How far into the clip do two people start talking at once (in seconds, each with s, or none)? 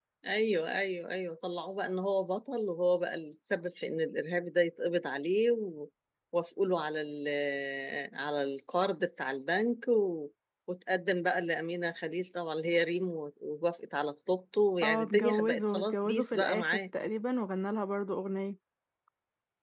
14.8 s